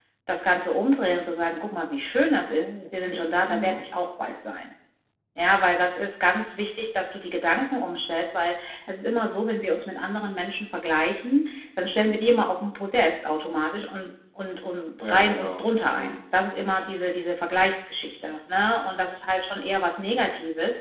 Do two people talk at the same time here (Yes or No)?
Yes